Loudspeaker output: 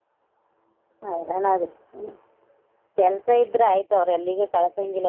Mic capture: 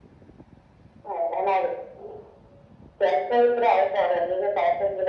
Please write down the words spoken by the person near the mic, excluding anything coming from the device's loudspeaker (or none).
none